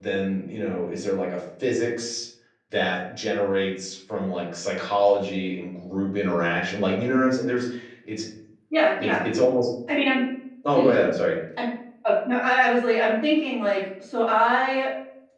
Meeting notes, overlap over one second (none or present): none